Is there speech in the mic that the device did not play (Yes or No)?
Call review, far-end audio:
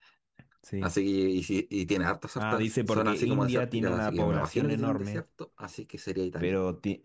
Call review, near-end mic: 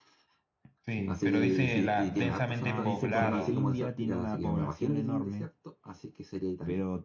Yes